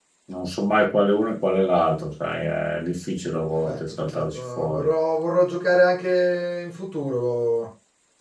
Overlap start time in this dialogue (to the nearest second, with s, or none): 4 s